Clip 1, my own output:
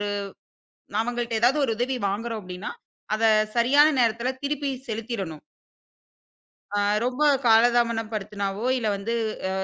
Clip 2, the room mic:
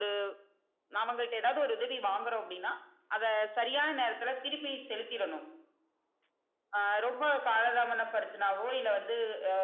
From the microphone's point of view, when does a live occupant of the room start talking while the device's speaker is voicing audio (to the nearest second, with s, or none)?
none